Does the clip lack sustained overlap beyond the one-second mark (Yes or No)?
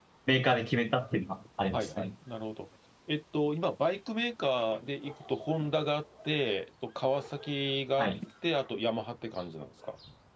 Yes